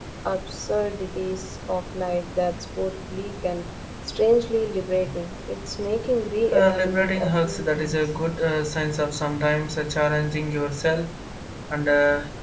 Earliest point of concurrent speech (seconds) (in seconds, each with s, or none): 6.5 s